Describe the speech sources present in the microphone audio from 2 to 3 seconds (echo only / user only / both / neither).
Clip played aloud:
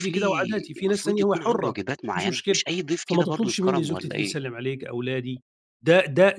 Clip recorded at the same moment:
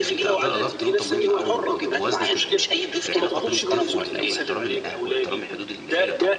both